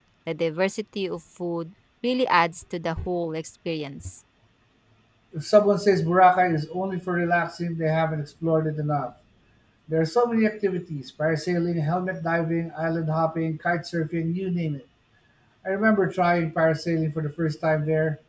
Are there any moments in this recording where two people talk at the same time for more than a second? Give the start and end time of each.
none

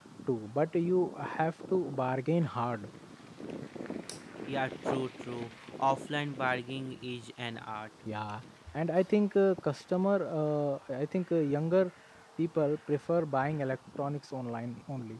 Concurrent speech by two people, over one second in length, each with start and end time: none

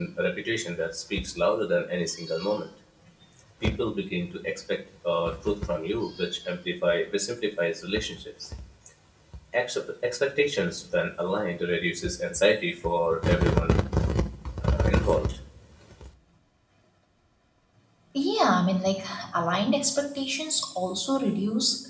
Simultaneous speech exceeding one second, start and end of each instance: none

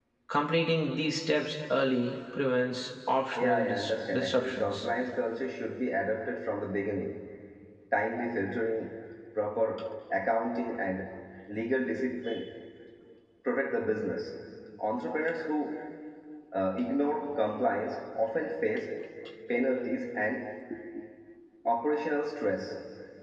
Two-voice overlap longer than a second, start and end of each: 3.4-4.8

